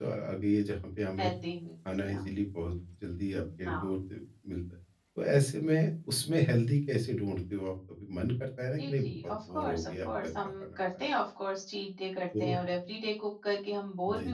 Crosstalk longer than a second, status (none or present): present